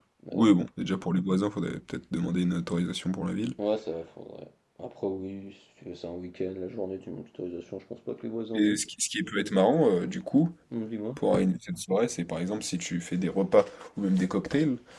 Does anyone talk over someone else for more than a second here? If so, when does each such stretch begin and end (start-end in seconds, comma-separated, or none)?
none